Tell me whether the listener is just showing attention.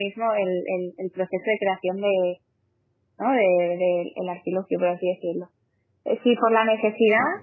Yes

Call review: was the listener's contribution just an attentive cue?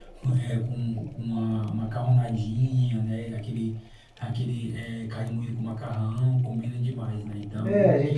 No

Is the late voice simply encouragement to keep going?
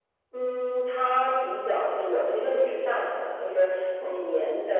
Yes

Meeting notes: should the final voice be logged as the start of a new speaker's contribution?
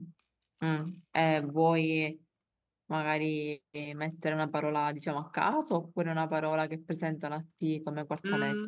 Yes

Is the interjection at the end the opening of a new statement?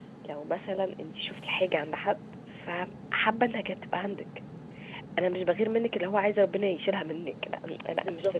No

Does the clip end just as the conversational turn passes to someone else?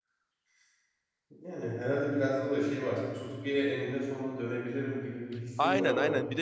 Yes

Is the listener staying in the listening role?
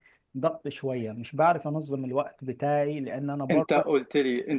No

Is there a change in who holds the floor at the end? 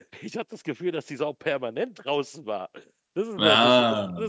No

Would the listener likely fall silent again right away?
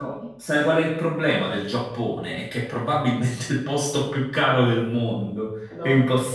Yes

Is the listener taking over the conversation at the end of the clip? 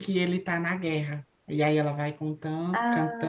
No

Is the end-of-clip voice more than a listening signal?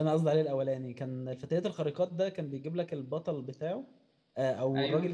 No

